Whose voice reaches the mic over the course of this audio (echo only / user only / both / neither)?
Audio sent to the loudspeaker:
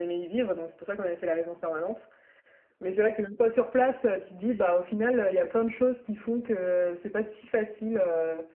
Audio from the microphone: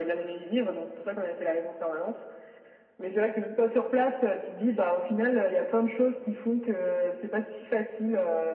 echo only